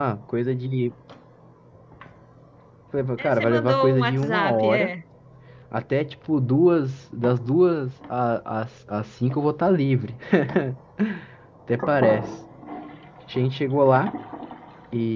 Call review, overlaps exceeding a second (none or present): present